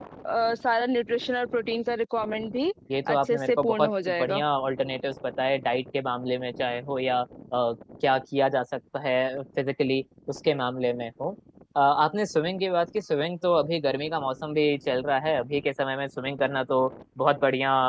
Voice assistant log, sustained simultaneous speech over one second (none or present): present